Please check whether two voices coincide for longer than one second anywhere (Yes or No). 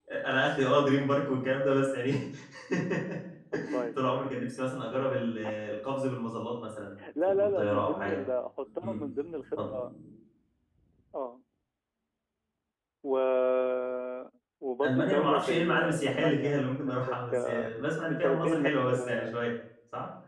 Yes